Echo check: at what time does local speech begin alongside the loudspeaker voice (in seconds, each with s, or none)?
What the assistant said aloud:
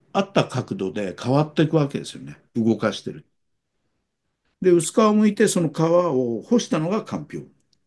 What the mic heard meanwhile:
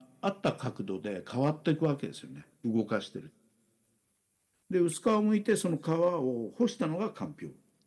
none